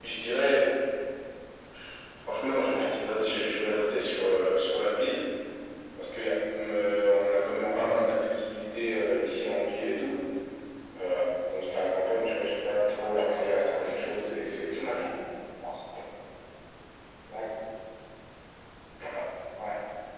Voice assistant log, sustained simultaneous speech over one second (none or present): present